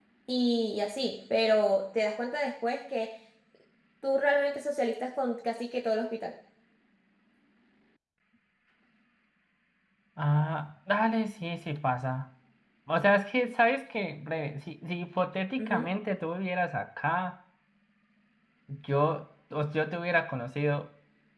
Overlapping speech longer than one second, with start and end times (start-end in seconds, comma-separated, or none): none